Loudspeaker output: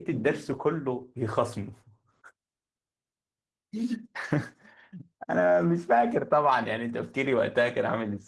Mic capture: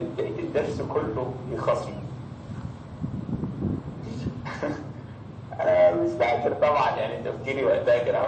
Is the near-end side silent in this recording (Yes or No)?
Yes